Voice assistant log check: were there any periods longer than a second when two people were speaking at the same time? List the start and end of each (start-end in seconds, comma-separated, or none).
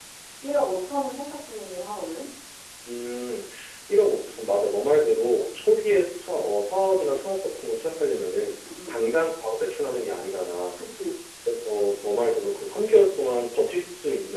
none